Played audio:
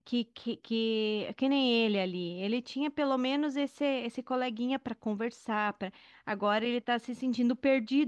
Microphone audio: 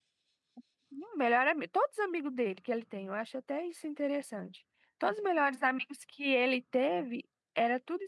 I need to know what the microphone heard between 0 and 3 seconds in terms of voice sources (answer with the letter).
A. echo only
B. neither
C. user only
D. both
C